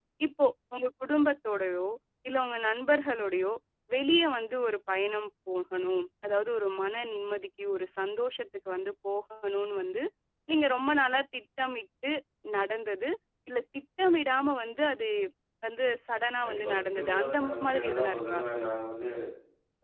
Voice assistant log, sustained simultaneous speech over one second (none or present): present